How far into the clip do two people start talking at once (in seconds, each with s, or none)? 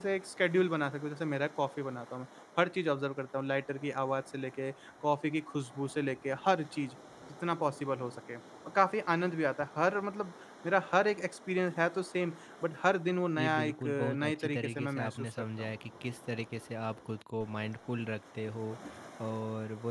13.4 s